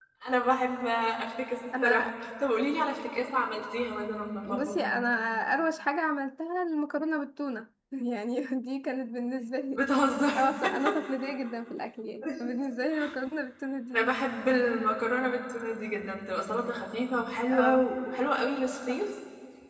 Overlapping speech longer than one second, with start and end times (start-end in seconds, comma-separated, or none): none